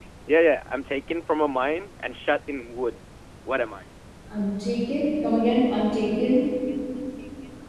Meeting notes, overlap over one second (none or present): none